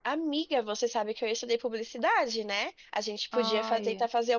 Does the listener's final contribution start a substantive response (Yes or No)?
No